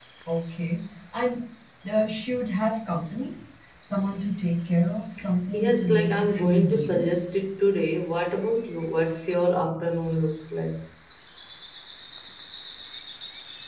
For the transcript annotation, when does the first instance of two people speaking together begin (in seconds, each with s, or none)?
5.5 s